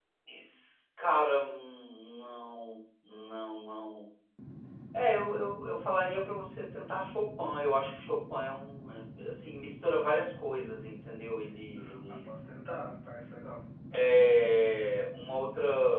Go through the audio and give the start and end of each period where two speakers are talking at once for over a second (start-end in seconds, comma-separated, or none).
none